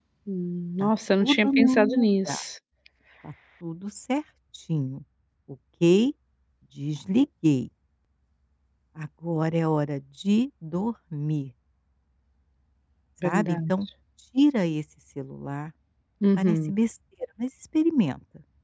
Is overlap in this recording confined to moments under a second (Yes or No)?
No